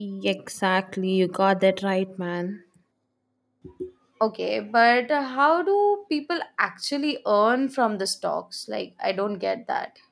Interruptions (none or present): none